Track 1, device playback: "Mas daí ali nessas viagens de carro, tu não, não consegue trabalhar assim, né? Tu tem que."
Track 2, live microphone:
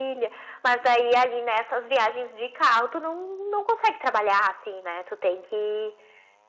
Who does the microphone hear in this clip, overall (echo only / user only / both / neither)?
echo only